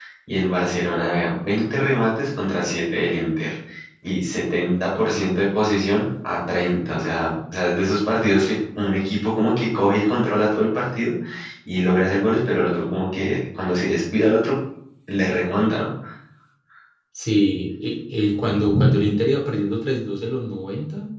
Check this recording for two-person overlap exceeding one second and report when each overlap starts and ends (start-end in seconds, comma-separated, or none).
none